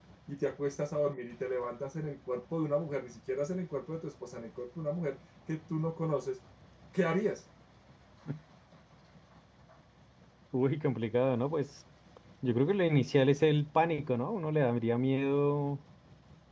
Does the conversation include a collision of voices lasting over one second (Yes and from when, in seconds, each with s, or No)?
No